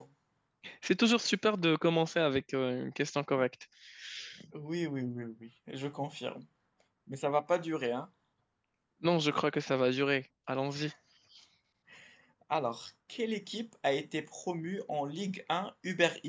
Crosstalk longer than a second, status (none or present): none